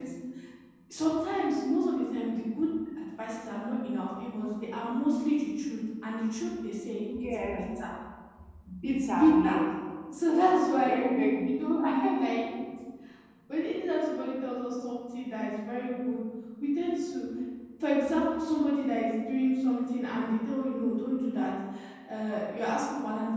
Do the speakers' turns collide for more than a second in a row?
Yes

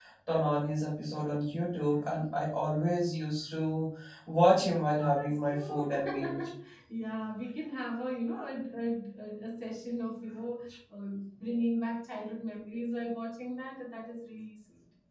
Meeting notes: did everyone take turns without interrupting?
No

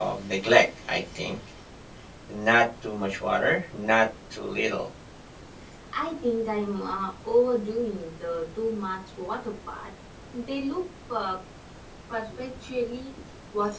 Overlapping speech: No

